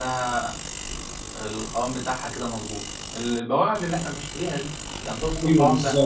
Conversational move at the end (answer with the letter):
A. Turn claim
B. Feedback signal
A